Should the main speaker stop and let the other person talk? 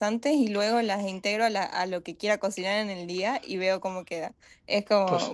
No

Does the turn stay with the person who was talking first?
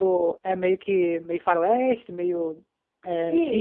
No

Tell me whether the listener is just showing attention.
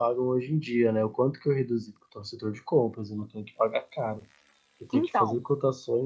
Yes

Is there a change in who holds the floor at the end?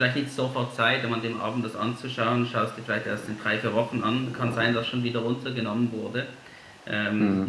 No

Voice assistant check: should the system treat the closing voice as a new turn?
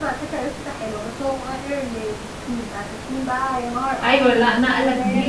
Yes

